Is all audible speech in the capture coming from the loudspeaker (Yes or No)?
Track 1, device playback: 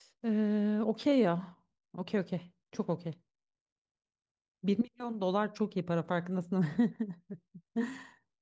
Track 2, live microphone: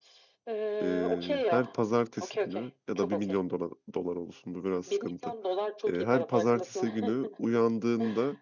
No